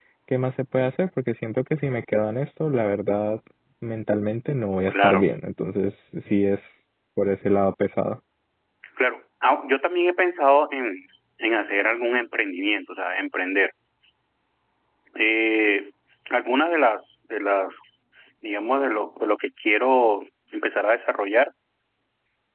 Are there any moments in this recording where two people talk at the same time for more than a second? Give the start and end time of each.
none

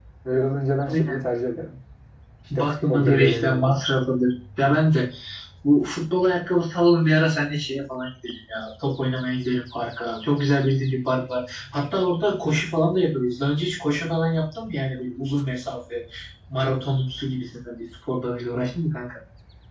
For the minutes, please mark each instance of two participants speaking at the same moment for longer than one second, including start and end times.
2.6-3.8

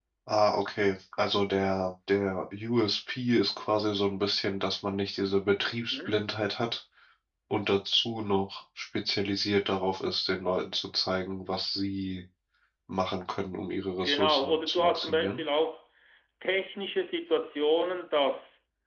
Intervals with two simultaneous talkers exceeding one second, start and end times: 14.0-15.4

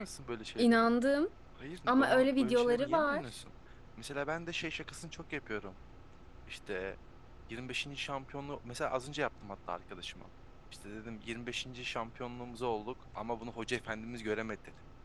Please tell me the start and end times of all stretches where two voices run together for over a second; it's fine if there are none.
1.9-3.2

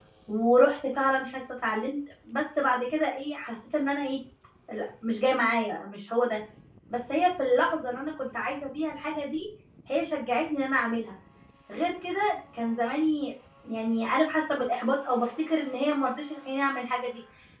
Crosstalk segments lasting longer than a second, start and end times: none

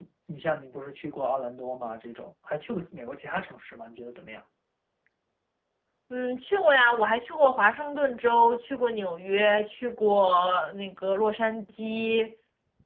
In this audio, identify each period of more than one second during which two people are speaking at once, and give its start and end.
none

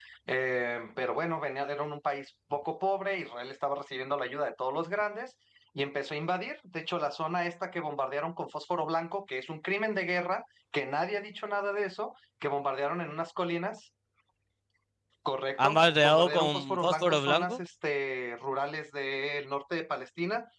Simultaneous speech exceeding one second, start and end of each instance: 15.6-17.6

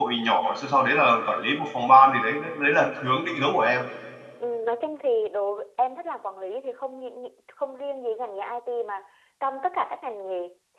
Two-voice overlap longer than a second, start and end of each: none

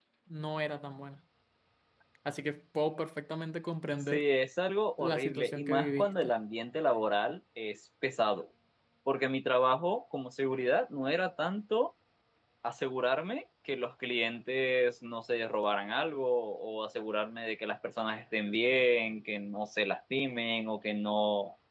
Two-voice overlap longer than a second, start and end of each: 5.0-6.3

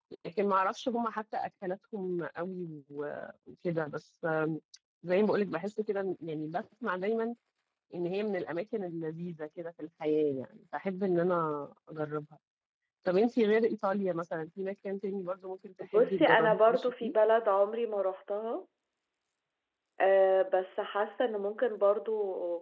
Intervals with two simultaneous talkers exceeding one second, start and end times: 15.9-17.1

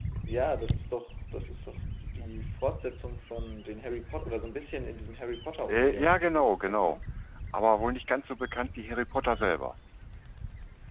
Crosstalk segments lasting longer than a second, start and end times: 5.7-7.0

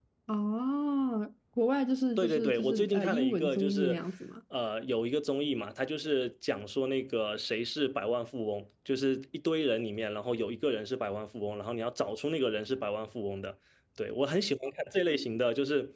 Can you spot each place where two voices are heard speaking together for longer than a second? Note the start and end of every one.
2.2-4.0

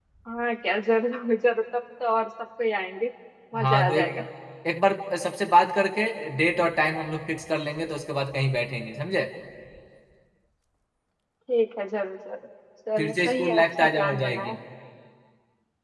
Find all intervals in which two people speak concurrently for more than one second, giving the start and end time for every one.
13.0-14.5

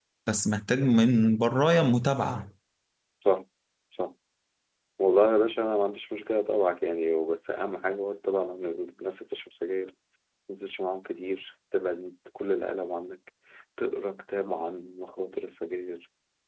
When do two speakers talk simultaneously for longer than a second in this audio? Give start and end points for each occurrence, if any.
none

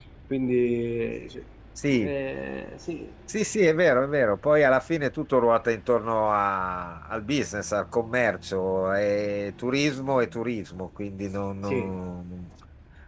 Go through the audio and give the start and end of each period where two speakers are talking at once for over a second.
none

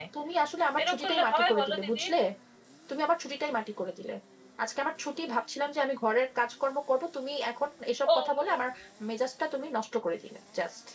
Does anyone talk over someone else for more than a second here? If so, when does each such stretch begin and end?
0.8-2.0

